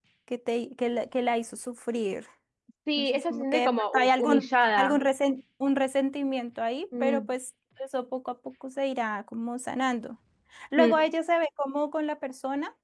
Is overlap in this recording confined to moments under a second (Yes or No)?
No